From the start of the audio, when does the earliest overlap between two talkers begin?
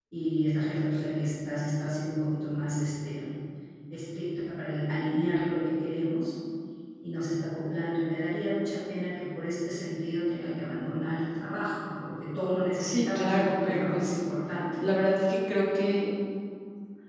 12.8 s

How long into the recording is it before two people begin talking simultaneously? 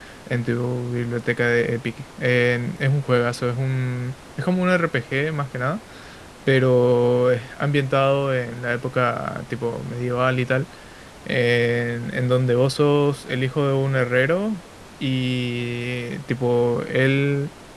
none

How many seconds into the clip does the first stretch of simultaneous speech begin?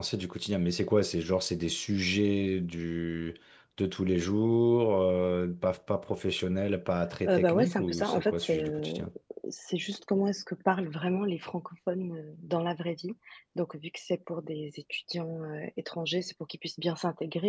7.2 s

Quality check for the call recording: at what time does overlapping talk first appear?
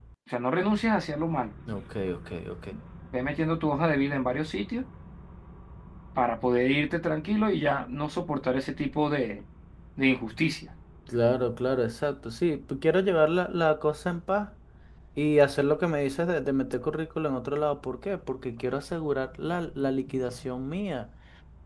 none

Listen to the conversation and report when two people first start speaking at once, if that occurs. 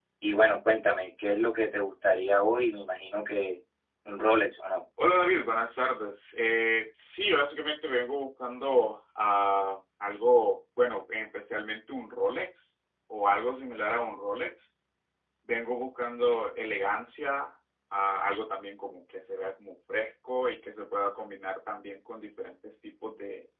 none

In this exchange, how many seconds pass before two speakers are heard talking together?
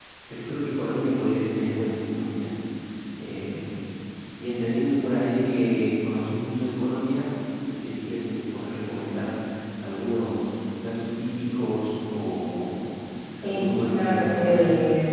13.4 s

